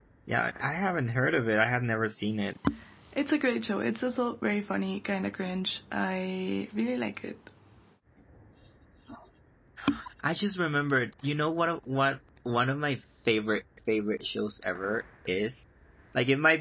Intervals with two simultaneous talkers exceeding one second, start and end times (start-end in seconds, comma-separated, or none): none